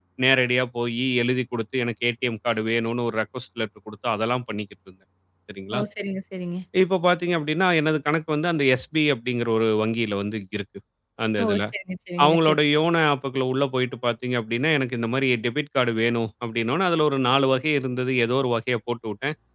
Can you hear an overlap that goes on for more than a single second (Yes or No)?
No